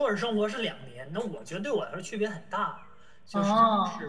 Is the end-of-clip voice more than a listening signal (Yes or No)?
No